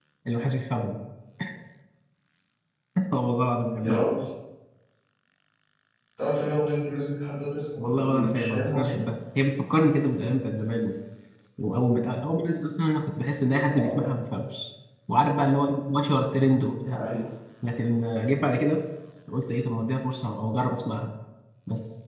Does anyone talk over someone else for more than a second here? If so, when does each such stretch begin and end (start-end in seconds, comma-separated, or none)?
7.8-9.0